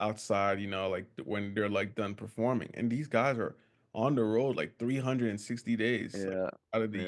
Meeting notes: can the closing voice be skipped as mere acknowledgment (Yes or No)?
Yes